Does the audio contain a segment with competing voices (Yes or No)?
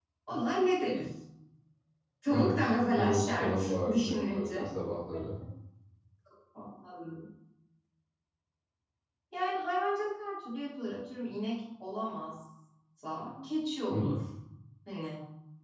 Yes